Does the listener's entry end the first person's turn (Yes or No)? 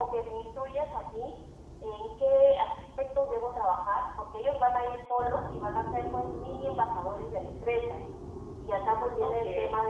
No